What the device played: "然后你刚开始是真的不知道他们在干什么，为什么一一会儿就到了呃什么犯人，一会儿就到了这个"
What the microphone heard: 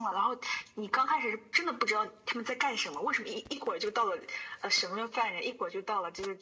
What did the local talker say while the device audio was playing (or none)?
none